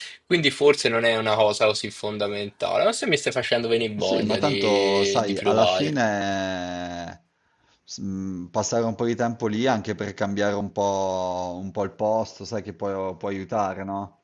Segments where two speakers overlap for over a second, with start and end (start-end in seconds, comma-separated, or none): 4.0-5.9